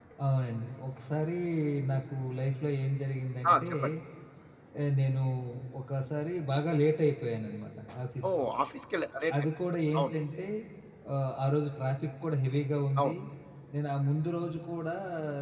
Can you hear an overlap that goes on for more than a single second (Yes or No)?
No